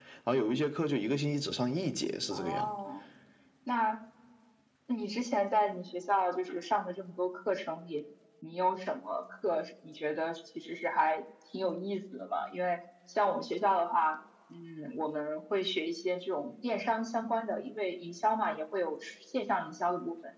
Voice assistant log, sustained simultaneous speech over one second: none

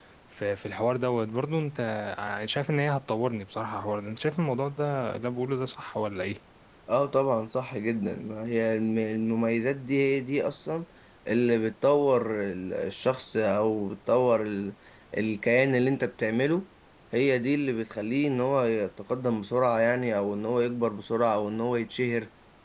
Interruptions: none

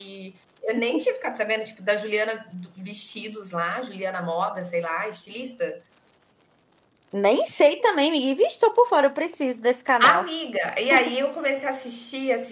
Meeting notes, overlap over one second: none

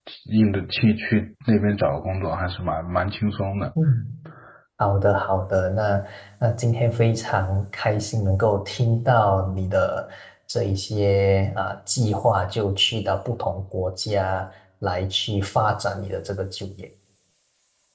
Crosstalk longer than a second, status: none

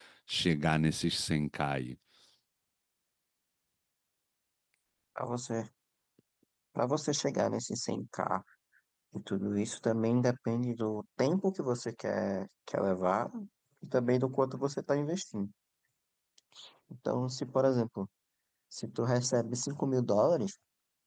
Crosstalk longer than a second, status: none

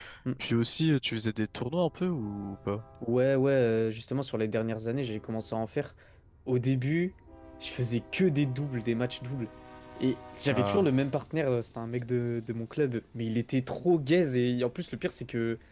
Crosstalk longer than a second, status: none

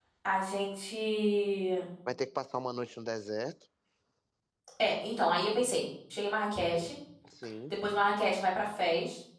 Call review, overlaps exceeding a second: none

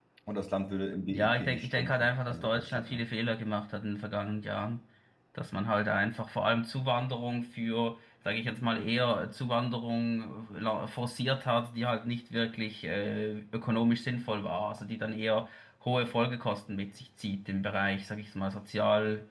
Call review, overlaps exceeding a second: present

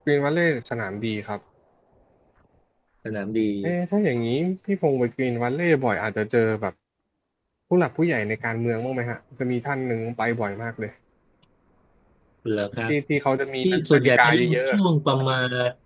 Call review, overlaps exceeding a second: present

